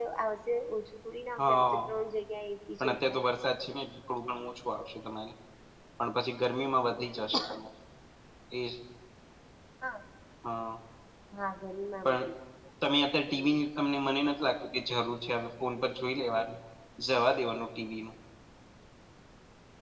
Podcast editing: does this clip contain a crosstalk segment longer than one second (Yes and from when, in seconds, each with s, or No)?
No